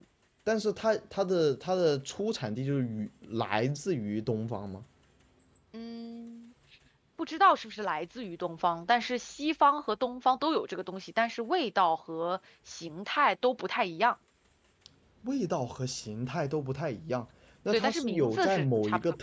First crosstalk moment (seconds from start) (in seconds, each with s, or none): 17.7 s